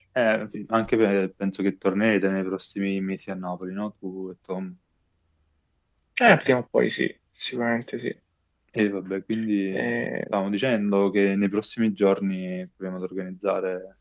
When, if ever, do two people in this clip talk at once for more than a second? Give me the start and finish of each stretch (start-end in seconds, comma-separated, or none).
none